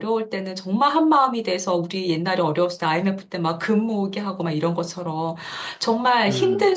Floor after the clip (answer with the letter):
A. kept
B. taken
A